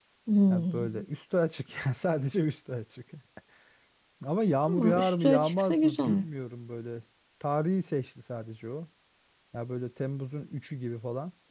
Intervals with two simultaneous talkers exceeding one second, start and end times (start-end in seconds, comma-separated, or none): 4.7-6.2